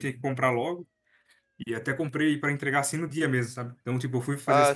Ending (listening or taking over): listening